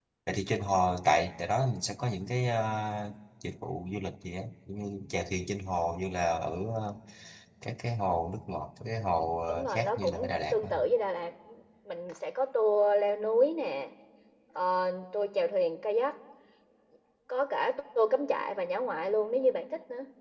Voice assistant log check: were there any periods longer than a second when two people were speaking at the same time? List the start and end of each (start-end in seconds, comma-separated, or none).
9.5-10.7